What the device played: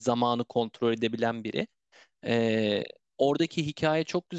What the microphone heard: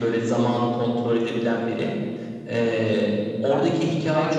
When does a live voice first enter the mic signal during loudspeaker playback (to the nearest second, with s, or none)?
3 s